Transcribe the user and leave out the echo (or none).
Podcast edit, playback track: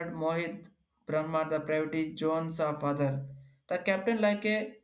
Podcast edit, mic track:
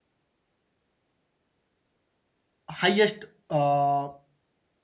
highest uh,